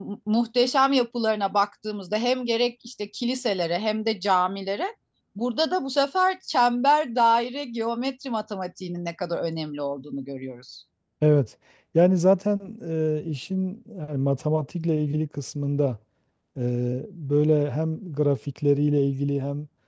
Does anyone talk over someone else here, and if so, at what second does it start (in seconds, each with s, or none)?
none